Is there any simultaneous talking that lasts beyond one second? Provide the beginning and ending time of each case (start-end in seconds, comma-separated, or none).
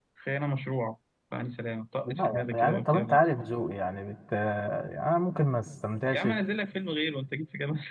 2.0-3.5